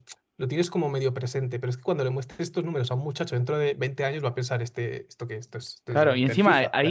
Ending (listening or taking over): taking over